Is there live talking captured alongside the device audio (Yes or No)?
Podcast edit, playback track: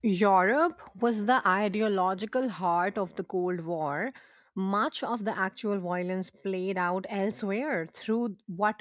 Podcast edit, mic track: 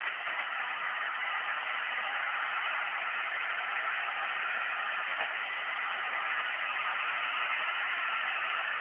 No